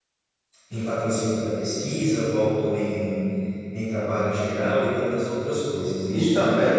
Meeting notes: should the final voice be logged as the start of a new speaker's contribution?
Yes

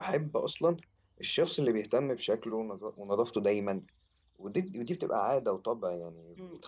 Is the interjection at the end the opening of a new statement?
Yes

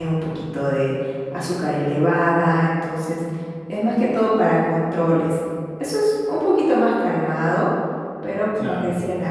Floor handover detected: No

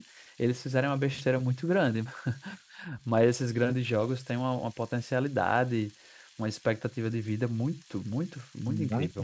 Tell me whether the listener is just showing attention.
No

